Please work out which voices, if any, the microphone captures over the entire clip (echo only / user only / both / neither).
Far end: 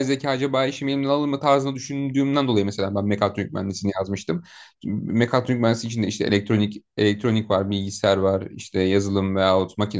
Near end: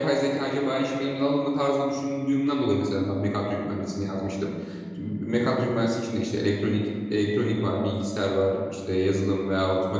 echo only